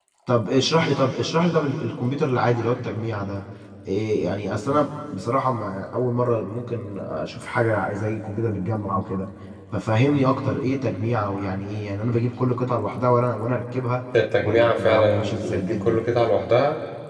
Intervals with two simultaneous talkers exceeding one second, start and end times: 14.4-16.0

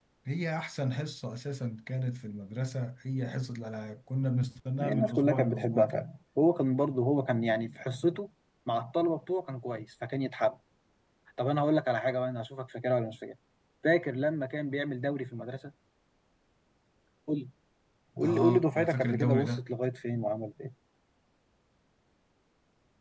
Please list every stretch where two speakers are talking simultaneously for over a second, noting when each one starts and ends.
4.8-6.1, 18.2-19.7

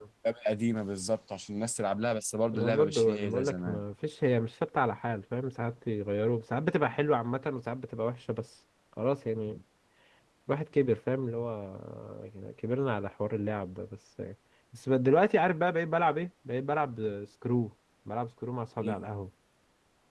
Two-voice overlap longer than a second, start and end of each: 2.5-3.8

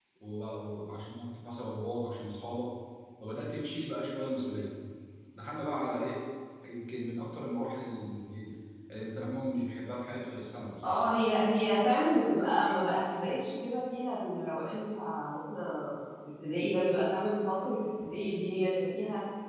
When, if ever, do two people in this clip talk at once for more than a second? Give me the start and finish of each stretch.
none

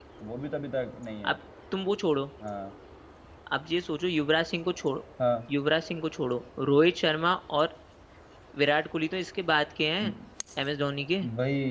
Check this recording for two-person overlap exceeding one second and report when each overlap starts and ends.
none

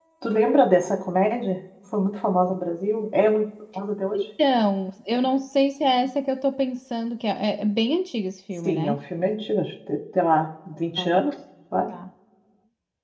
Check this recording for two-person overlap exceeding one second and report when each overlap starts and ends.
none

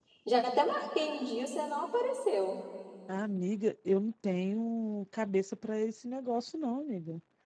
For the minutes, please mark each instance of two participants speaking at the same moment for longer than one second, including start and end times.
none

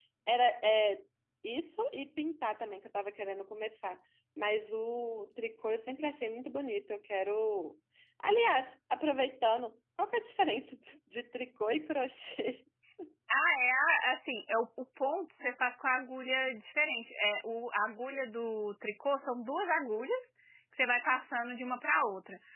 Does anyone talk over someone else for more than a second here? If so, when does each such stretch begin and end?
none

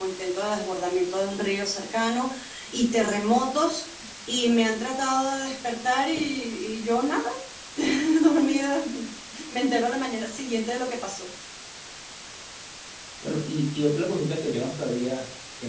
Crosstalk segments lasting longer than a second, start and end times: none

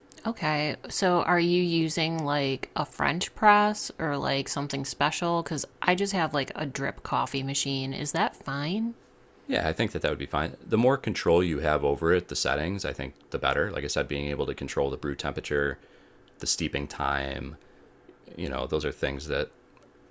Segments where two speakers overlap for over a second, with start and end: none

